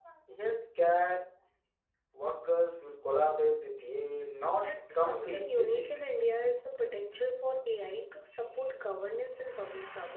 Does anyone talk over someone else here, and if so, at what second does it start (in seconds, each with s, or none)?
4.5 s